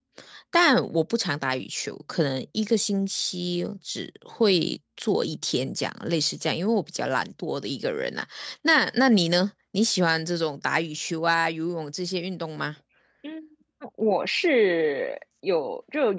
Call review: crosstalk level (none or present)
none